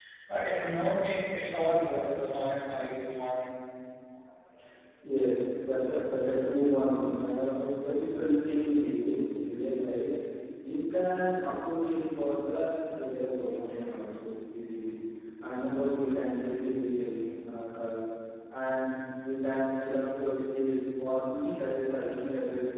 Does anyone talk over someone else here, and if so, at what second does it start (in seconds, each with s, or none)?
none